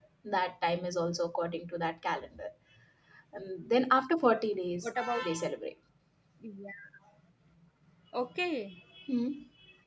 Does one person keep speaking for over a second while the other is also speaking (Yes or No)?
No